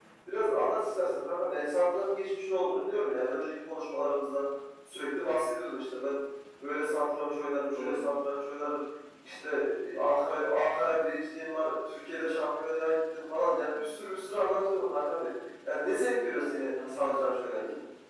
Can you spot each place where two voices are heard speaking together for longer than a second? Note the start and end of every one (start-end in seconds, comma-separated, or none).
16.3-17.6